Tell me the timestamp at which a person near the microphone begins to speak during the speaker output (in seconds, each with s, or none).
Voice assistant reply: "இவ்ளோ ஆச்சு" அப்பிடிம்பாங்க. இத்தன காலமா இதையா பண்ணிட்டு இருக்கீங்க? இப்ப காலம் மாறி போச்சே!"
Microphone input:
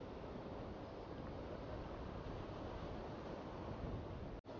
none